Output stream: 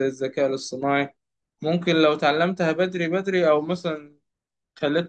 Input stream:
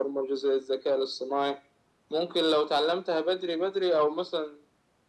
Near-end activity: none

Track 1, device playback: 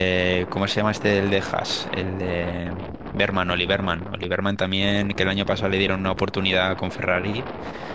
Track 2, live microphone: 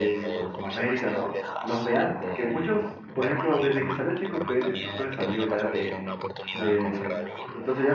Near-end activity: present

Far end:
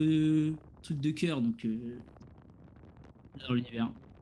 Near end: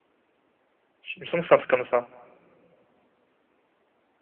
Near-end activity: present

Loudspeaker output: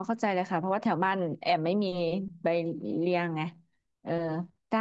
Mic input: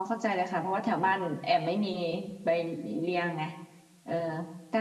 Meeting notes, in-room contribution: none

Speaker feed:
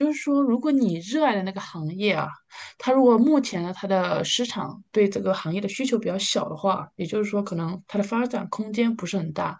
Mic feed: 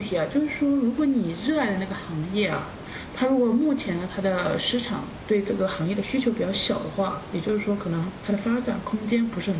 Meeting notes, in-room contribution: none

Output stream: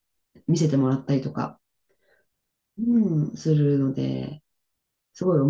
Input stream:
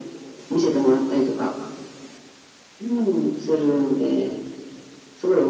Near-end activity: none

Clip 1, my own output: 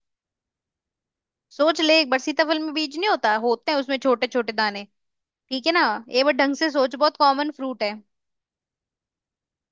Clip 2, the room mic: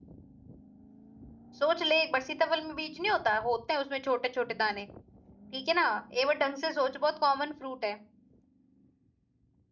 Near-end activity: none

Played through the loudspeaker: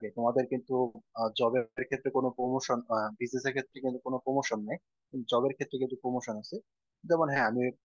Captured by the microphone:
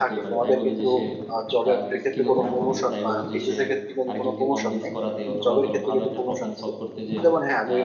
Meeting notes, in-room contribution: present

